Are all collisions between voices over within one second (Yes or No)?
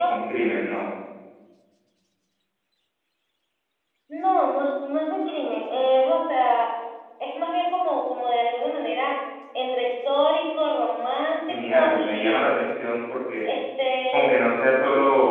No